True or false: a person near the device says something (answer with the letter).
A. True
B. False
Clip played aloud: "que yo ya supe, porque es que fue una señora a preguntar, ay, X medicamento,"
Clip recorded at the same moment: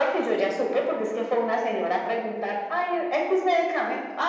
B